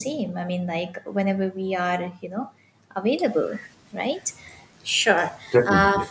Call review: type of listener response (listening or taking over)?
listening